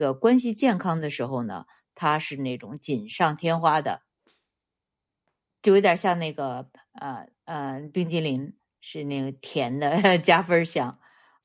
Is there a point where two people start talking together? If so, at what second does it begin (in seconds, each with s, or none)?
none